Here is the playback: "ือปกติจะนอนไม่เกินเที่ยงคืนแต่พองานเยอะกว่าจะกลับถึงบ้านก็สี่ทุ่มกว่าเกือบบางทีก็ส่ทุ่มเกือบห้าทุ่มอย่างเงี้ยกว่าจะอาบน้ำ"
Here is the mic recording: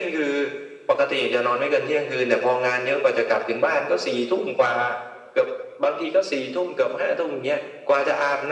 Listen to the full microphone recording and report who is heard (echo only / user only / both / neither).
echo only